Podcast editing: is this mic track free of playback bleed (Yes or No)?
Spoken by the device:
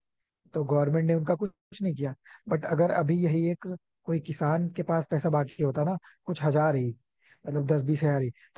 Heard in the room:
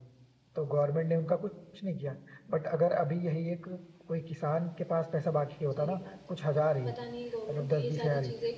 No